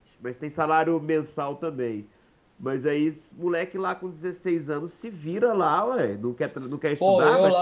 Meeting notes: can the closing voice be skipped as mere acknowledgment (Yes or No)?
No